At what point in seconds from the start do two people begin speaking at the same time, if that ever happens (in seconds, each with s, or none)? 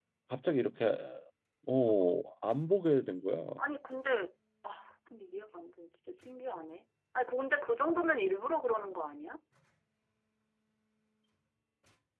none